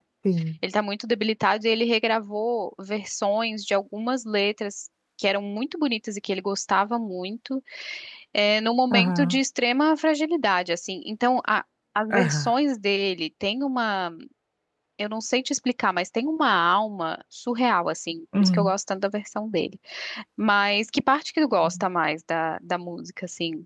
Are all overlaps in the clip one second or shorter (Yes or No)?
Yes